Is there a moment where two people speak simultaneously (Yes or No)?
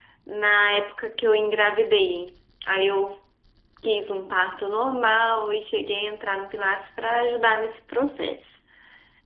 No